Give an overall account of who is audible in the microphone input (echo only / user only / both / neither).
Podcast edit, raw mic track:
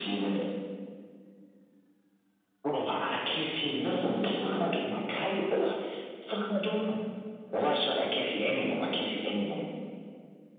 echo only